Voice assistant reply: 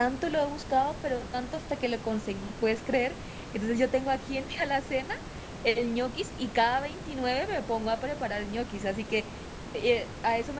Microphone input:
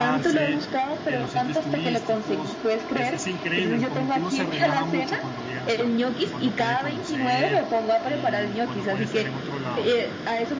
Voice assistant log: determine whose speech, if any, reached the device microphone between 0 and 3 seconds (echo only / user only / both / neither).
both